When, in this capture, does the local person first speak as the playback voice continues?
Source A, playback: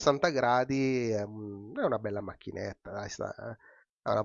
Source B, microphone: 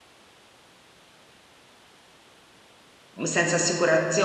3.1 s

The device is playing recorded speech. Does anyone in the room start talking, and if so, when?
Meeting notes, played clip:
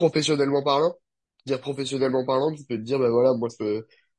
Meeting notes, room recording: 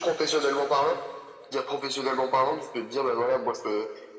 none

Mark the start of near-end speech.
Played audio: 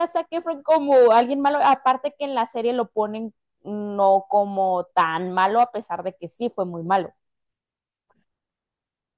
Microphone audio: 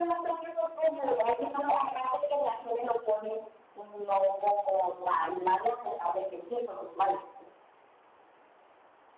none

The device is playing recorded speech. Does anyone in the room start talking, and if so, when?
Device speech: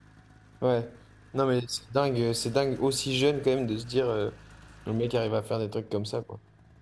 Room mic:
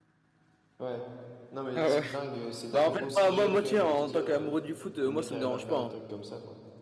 1.8 s

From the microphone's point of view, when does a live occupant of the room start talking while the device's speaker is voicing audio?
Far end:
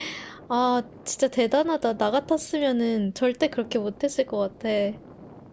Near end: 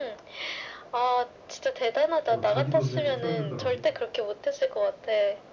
2.3 s

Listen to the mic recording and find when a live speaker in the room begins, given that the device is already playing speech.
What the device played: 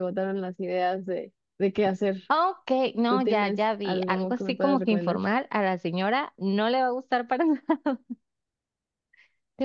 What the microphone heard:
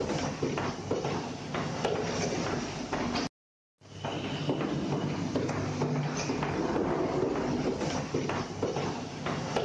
none

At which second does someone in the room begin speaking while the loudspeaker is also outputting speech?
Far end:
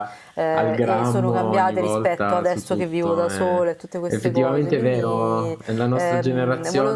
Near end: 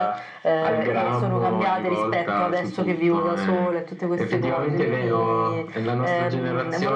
none

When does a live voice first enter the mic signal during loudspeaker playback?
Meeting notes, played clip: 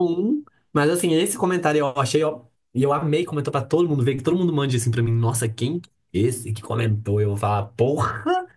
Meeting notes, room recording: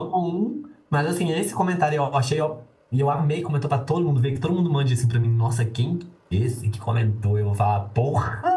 none

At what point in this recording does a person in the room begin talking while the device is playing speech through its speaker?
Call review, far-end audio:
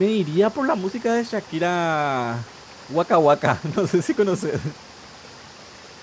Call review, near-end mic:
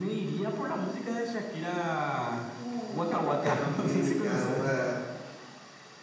2.5 s

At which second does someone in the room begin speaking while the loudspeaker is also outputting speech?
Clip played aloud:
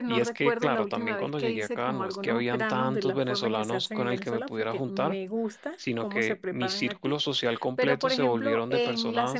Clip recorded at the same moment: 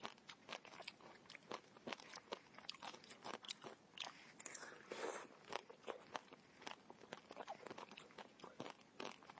none

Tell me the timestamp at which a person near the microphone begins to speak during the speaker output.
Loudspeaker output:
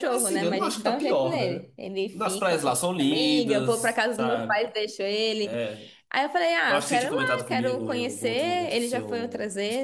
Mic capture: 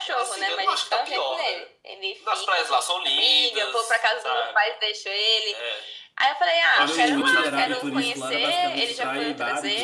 6.7 s

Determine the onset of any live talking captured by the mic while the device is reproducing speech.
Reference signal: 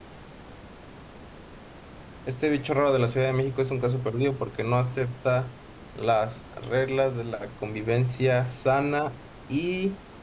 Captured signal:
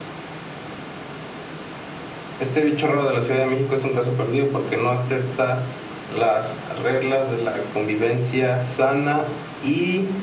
none

